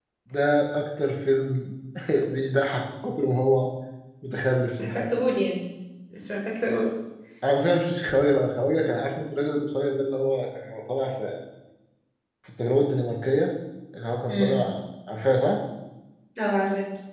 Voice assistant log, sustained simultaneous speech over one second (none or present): none